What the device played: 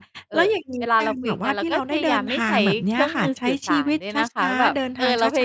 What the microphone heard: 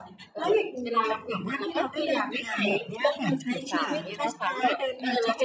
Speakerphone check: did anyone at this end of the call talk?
Yes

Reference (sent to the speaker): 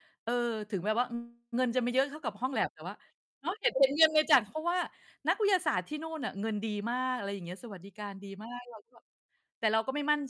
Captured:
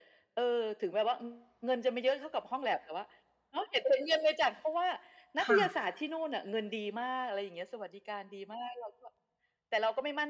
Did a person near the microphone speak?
Yes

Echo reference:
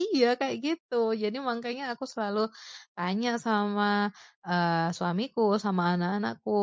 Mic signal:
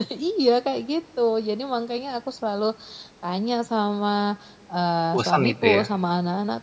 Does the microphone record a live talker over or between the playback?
Yes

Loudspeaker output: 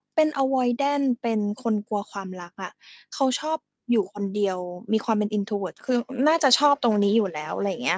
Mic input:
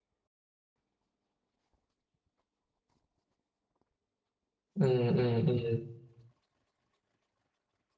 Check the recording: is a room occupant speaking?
Yes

